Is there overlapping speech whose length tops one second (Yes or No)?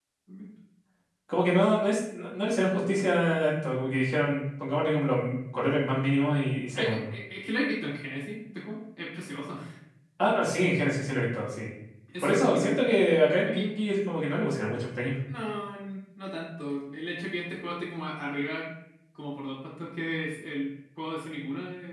No